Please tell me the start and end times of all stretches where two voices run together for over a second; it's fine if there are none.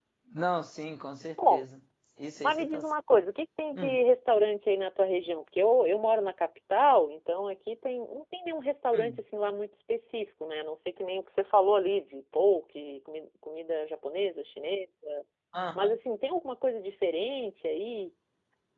none

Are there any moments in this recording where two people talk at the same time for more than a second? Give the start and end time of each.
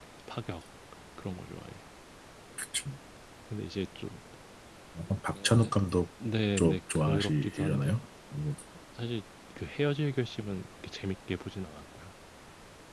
6.6-8.0

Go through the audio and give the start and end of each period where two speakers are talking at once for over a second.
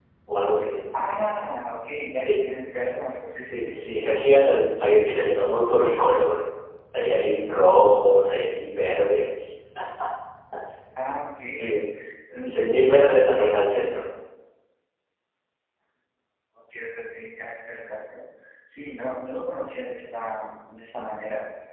12.4-14.0

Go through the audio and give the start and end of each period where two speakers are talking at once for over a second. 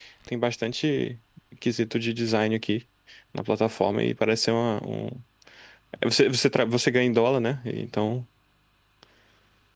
none

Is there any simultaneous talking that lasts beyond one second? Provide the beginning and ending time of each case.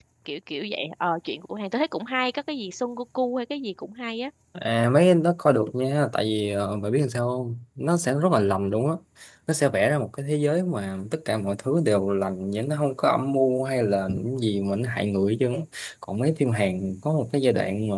none

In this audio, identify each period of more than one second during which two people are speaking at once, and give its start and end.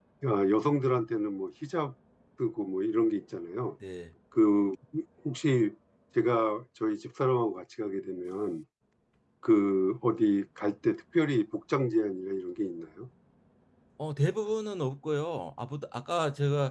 none

